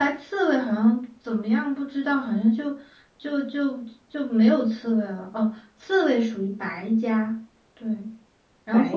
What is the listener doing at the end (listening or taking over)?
listening